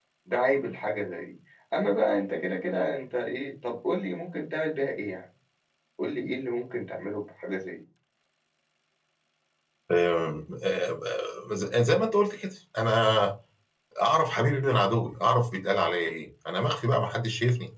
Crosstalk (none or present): none